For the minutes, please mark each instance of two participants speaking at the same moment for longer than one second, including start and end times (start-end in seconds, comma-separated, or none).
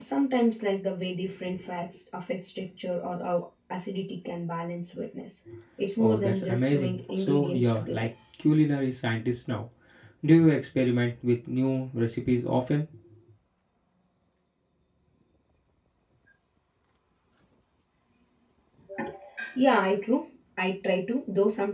6.0-8.1